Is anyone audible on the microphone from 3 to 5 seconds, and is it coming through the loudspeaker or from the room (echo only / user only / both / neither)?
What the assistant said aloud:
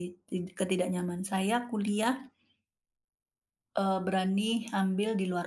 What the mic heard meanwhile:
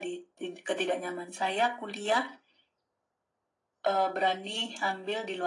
echo only